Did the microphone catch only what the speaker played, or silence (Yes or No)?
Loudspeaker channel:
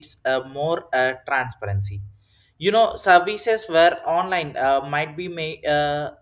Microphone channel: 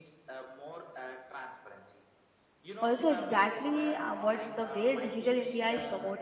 No